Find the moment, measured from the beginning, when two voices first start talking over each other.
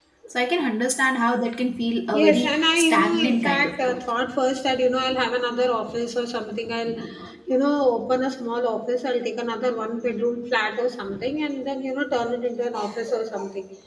2.1 s

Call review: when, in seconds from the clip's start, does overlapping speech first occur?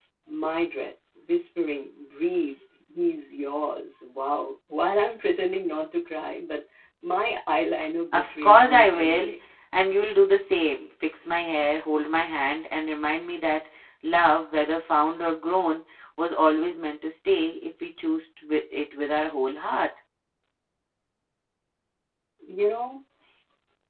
8.1 s

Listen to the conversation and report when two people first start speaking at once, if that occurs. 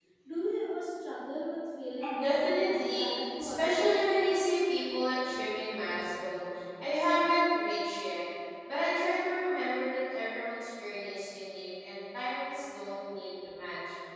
2.0 s

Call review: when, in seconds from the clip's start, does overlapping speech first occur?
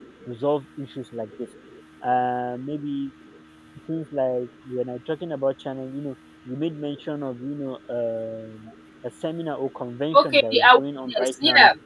10.1 s

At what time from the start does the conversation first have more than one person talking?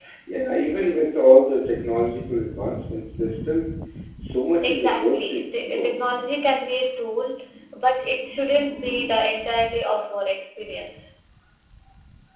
4.6 s

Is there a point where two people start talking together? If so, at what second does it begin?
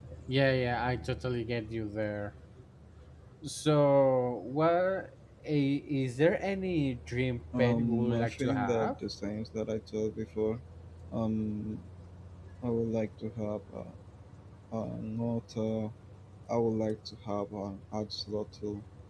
7.5 s

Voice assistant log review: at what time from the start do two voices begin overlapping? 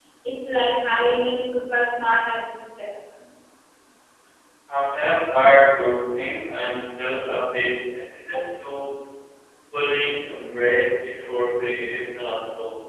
none

